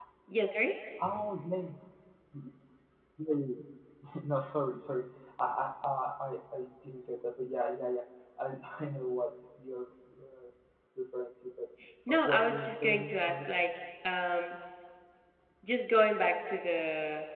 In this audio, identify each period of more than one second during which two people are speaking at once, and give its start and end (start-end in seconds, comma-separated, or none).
12.1-13.5